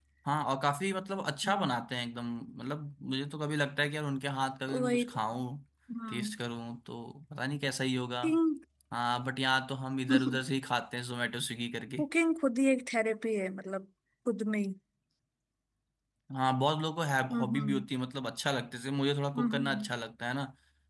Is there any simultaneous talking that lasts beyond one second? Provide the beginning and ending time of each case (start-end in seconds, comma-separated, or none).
none